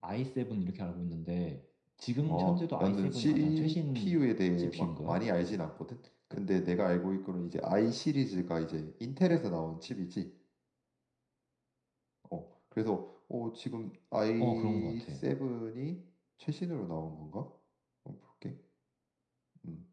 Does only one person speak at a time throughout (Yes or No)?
No